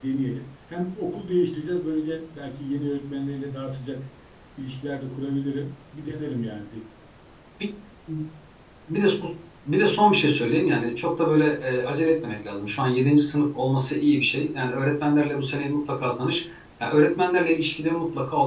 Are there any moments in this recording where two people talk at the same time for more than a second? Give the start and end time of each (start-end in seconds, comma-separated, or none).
none